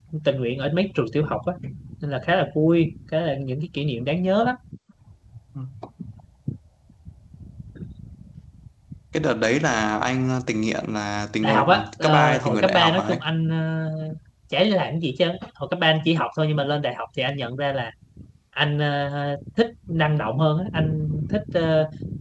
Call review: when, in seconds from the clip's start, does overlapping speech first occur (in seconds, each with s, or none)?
11.4 s